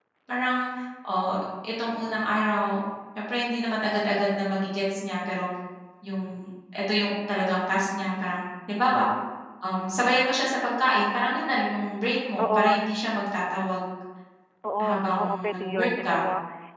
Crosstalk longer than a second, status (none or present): present